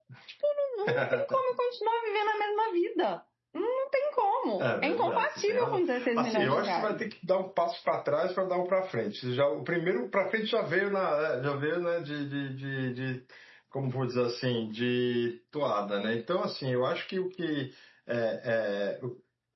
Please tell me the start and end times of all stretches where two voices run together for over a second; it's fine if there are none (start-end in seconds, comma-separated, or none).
4.6-7.0